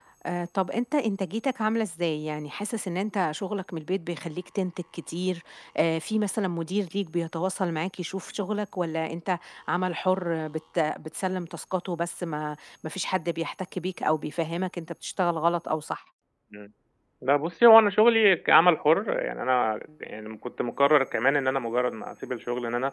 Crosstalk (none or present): none